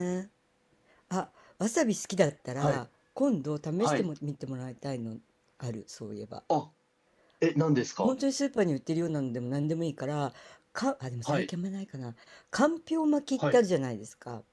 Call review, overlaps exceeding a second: none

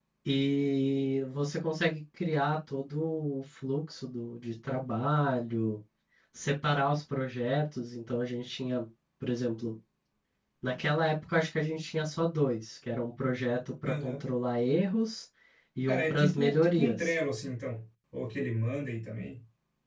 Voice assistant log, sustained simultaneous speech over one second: present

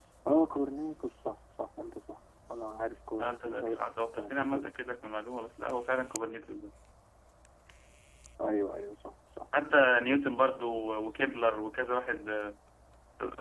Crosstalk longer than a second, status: present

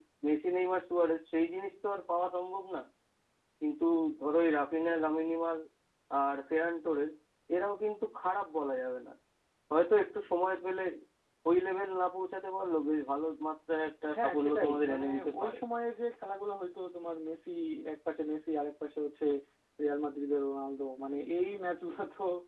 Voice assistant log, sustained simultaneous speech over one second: present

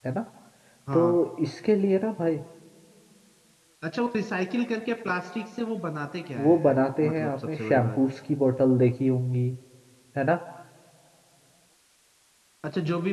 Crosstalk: present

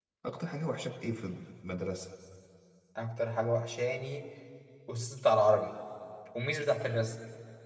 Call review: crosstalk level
none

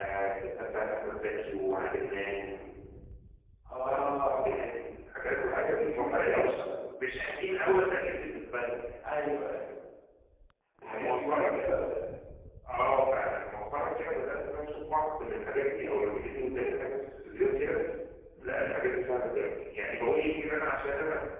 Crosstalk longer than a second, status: present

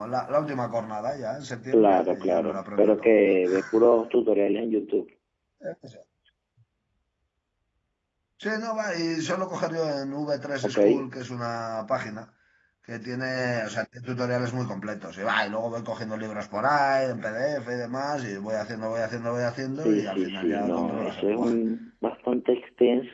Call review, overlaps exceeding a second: present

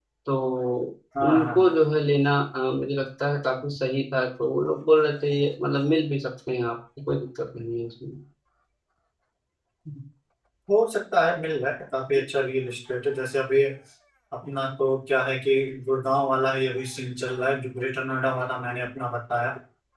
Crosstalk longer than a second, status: none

